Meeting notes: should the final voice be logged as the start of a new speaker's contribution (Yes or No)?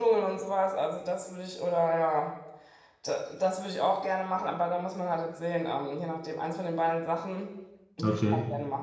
Yes